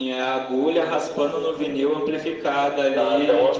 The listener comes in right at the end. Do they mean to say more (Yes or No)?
Yes